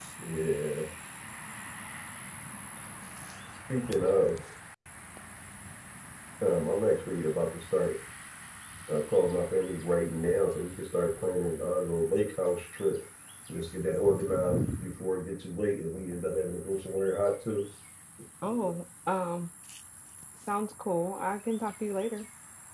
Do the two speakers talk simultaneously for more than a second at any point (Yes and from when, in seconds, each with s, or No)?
No